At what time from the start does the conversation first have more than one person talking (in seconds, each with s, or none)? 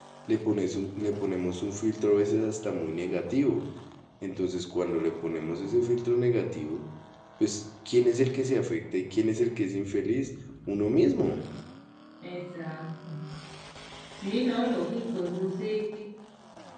none